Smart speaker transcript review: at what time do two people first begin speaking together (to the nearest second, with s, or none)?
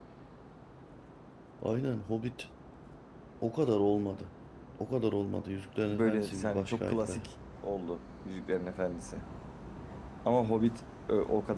6 s